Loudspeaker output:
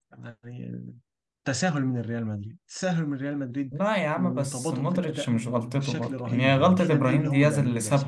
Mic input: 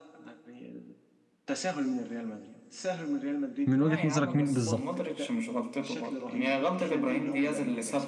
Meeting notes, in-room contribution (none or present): present